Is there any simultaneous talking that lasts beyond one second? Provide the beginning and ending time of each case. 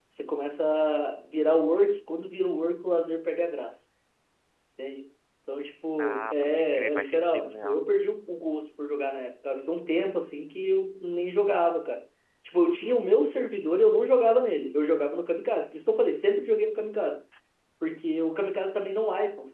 6.0-7.8

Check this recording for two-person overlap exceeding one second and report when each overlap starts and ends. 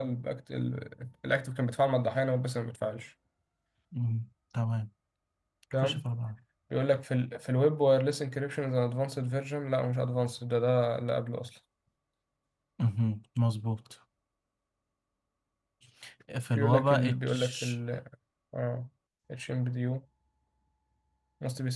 16.5-17.7

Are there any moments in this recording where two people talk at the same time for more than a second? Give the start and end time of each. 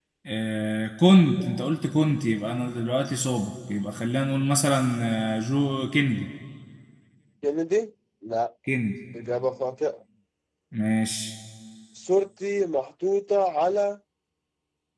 none

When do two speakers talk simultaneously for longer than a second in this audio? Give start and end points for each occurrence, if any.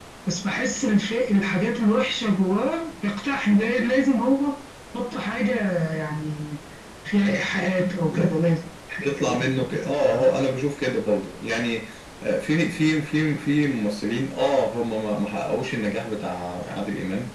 none

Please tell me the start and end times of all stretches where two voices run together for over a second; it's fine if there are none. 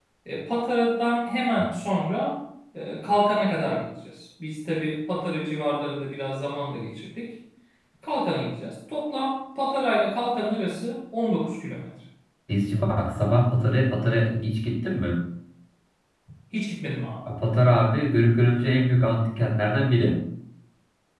none

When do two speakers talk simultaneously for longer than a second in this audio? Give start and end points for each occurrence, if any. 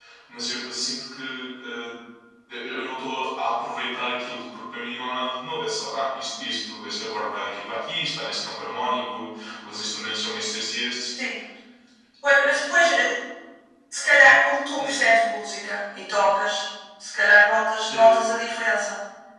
none

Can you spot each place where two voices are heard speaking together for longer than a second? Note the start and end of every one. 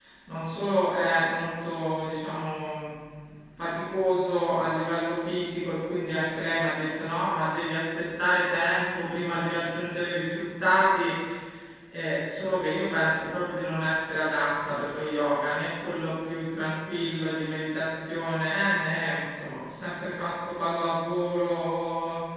none

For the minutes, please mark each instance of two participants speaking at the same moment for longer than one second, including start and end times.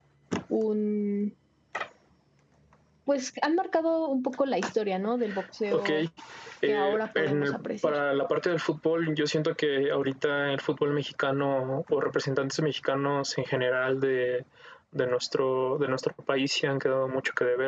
6.7-8.0

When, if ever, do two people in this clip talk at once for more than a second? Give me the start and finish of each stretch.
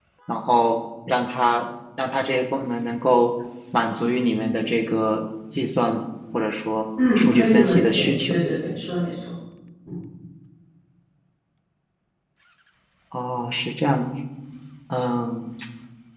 7.2-8.4

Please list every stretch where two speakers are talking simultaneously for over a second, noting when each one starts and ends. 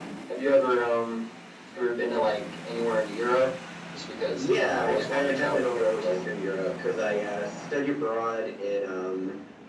4.3-6.2

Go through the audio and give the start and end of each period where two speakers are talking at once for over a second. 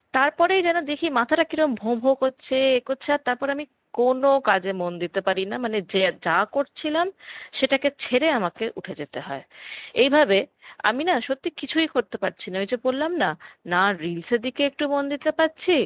none

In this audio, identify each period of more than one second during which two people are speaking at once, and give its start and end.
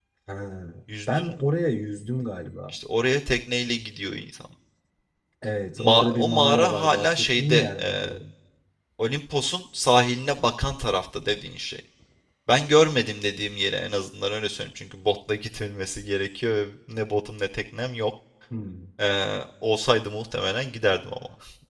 5.8-8.1

